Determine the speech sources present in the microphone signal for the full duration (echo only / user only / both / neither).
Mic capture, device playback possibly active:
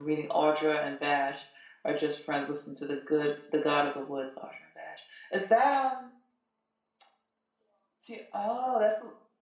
user only